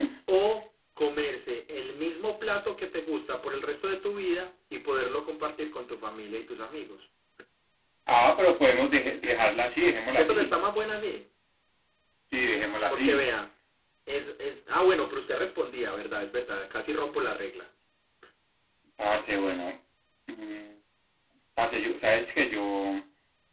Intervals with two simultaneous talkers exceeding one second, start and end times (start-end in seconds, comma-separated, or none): none